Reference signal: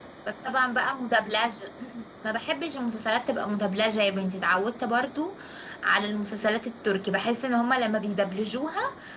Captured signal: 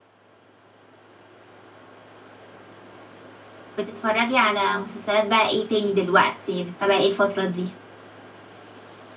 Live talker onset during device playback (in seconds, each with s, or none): 3.8 s